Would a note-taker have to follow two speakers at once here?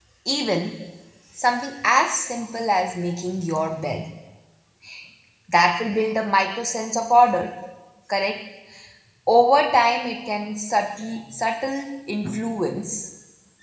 No

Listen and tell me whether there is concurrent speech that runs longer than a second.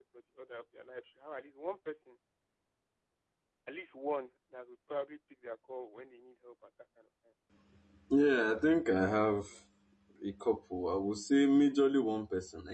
Yes, from 8.2 s

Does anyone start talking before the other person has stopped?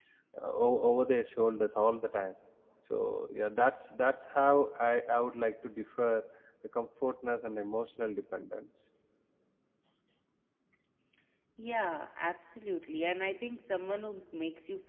No

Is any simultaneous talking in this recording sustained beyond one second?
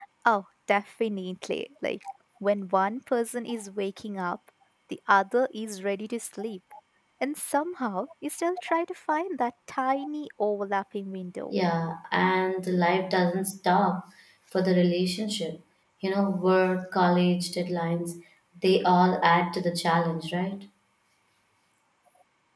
No

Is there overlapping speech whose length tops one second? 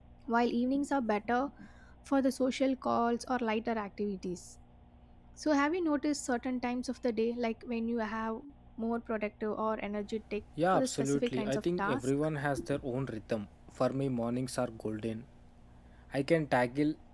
Yes, from 10.6 s

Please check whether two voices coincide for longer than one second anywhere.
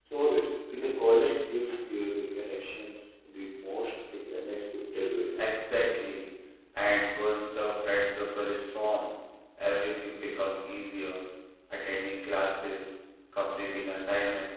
No

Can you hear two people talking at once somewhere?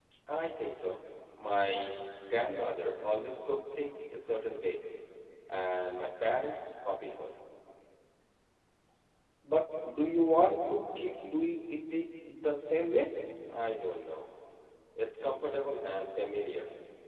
No

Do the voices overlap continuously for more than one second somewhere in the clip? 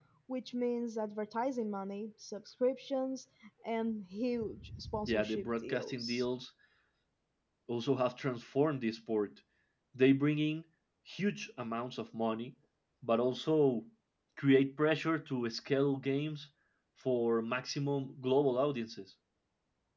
Yes, from 5.0 s

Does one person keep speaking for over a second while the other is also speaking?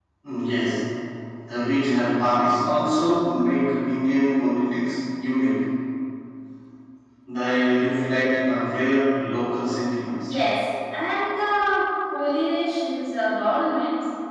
No

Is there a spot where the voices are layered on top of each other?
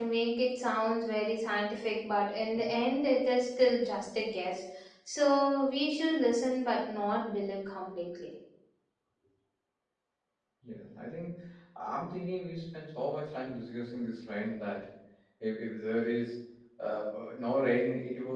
No

